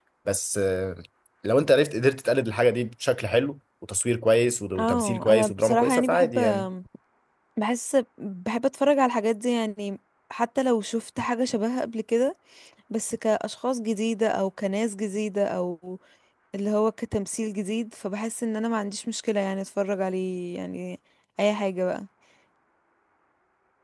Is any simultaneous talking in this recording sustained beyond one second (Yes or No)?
Yes